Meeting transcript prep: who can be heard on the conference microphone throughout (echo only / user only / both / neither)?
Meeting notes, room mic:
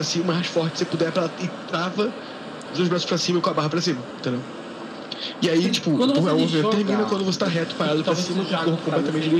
echo only